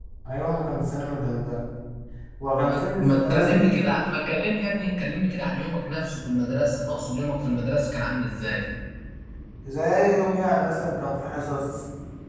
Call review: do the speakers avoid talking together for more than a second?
No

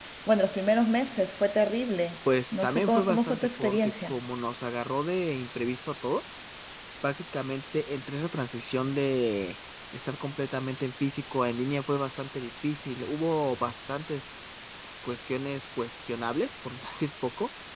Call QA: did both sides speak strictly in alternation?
No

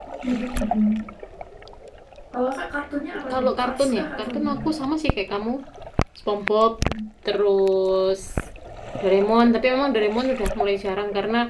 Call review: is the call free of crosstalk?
No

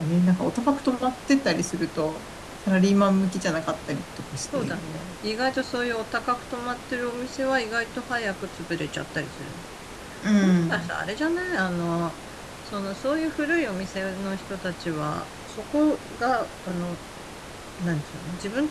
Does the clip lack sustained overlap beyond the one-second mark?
Yes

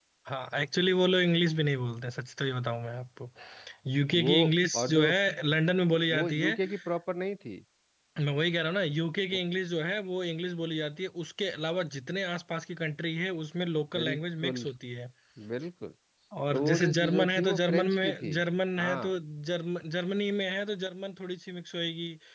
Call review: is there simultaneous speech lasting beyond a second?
Yes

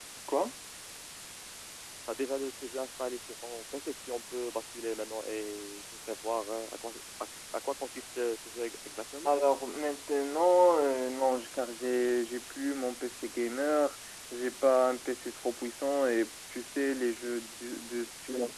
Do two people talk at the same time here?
No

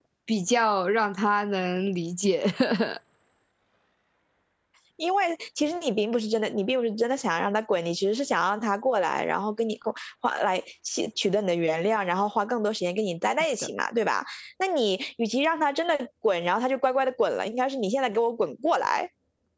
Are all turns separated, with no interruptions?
Yes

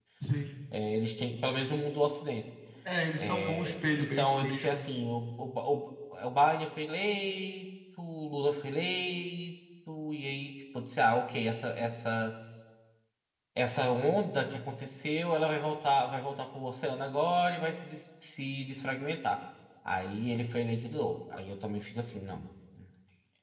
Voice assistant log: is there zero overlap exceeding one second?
No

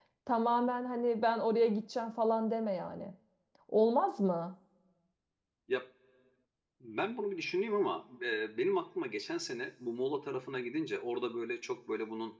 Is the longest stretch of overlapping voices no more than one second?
Yes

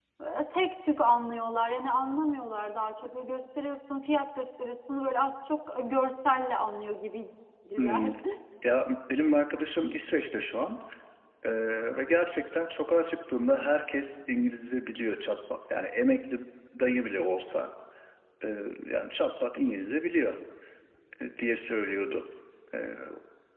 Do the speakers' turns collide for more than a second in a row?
No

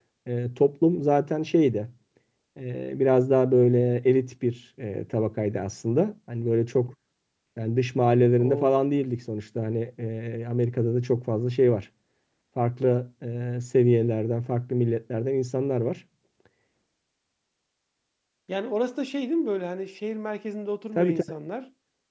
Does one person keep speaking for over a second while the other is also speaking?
No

